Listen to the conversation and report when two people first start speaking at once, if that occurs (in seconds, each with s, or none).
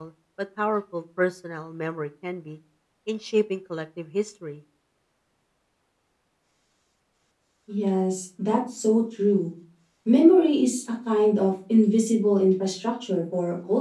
none